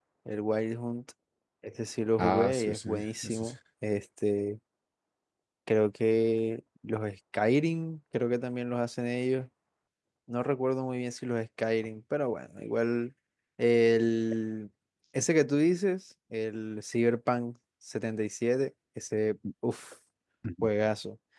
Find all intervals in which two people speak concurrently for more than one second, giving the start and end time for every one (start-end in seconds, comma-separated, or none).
2.2-3.5